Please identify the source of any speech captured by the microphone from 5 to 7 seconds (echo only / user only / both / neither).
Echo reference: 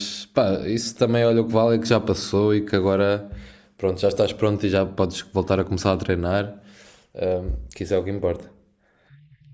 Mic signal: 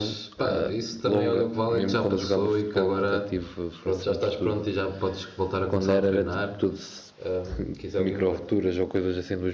both